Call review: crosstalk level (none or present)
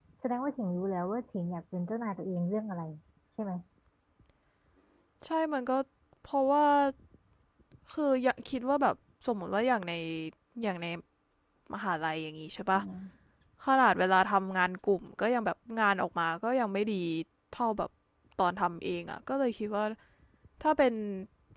none